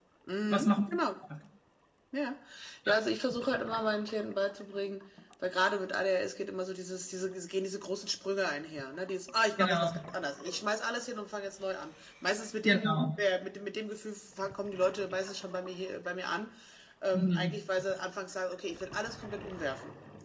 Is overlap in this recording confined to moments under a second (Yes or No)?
Yes